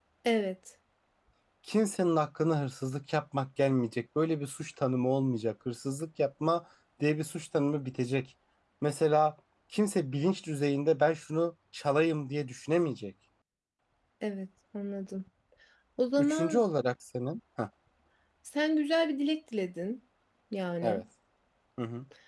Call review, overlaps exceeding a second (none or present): none